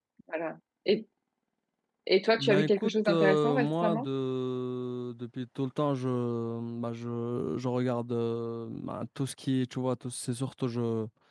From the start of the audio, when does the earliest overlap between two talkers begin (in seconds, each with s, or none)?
2.4 s